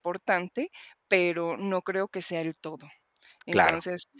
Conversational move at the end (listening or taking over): listening